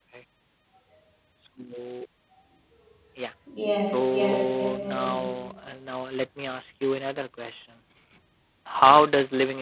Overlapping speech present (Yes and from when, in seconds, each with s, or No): Yes, from 3.9 s